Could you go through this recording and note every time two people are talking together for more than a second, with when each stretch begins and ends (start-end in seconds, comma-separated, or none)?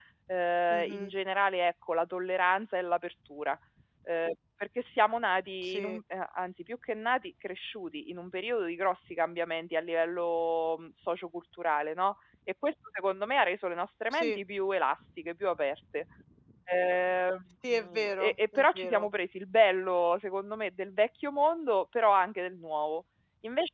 17.7-19.1